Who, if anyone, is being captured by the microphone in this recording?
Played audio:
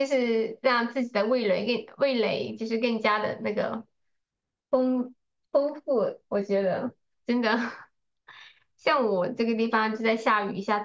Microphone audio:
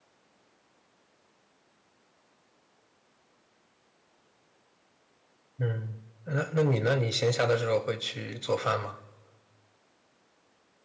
user only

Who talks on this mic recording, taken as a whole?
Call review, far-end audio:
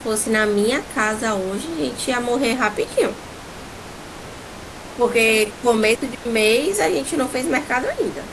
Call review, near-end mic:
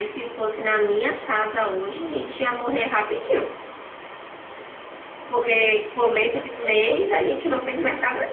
both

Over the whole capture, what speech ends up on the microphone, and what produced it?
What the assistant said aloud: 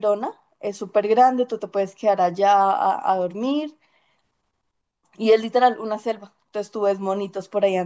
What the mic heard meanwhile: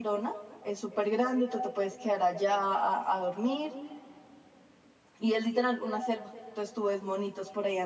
echo only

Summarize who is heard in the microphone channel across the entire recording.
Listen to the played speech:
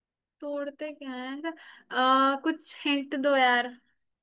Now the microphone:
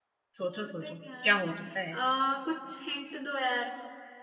both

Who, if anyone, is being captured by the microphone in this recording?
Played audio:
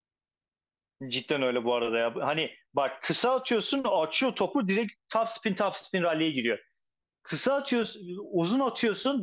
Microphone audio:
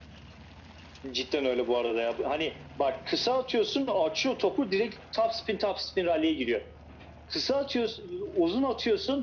echo only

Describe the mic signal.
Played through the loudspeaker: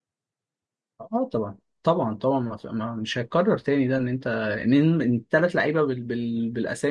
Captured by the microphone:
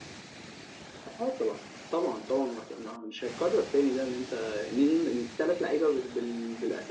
echo only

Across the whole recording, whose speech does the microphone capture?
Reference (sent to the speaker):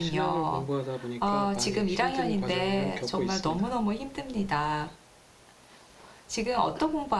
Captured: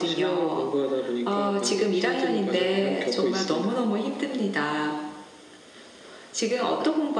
echo only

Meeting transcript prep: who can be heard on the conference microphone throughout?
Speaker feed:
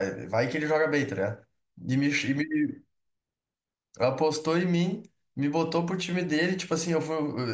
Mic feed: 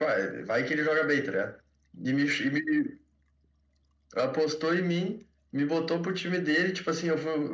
echo only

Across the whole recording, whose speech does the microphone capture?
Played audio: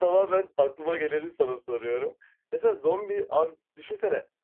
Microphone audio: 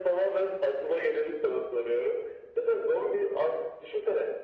echo only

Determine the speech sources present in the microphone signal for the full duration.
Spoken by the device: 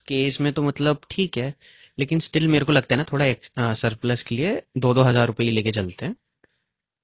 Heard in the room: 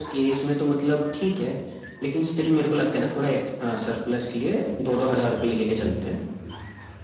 echo only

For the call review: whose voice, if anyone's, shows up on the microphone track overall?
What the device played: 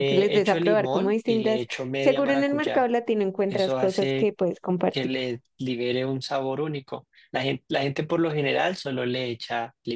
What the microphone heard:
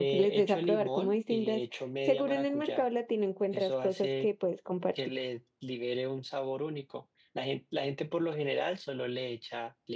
echo only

